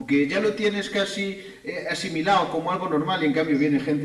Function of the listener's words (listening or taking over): listening